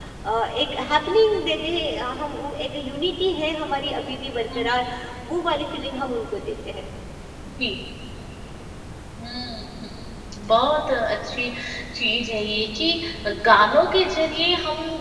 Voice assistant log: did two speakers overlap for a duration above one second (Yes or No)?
No